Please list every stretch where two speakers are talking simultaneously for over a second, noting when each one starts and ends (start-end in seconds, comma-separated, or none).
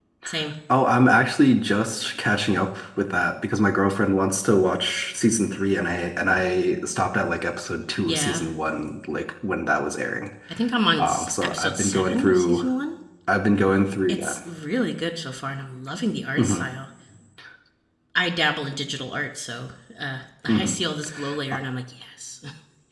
11.0-12.7